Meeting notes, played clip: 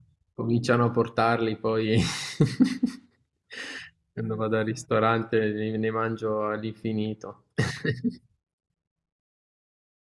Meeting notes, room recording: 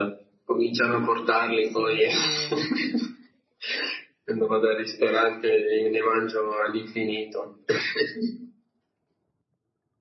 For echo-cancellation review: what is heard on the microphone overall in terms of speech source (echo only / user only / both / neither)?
both